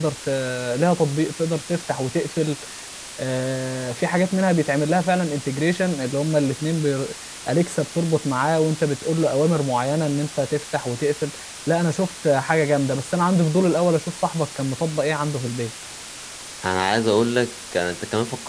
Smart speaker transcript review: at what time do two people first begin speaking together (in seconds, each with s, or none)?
none